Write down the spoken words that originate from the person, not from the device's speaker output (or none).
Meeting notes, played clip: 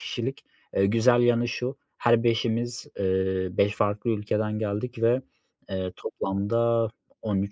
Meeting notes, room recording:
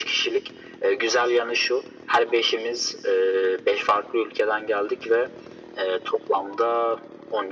none